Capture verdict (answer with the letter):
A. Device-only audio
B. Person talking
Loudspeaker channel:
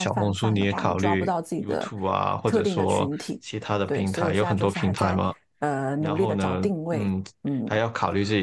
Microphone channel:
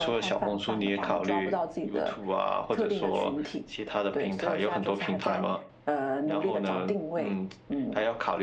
A